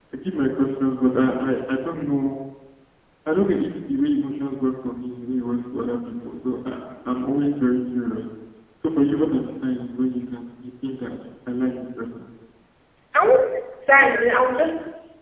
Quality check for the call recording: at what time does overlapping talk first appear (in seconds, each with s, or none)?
none